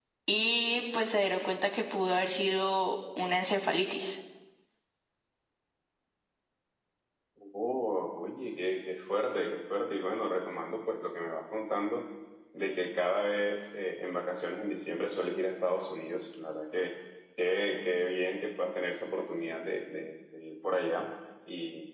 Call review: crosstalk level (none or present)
none